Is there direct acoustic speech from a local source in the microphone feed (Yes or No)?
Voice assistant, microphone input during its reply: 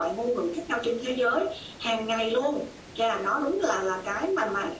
No